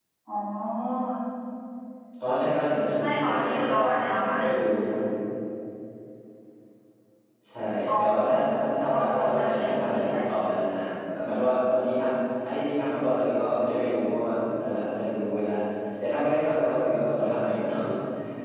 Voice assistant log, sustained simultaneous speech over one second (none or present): present